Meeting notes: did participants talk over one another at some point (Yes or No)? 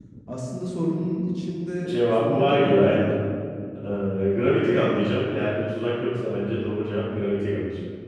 Yes